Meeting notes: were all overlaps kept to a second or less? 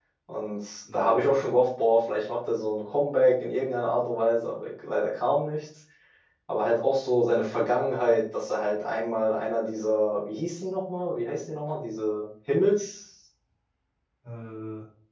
Yes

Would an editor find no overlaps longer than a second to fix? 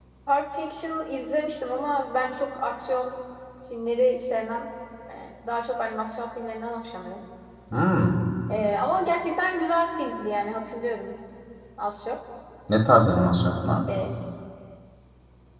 Yes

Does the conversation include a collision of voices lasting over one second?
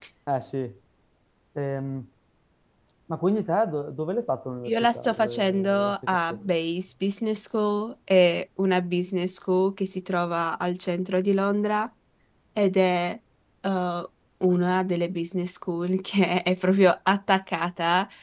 Yes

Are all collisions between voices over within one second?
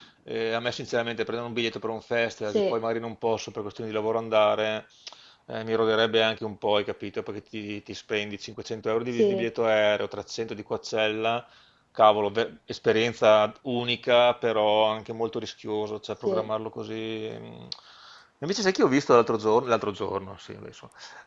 Yes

